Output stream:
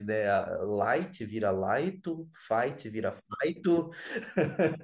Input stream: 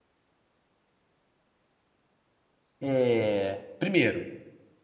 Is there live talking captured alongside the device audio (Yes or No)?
Yes